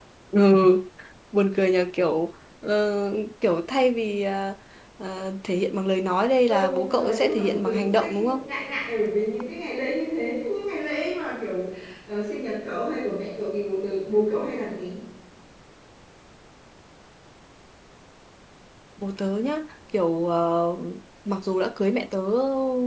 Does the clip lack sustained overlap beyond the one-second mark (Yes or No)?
No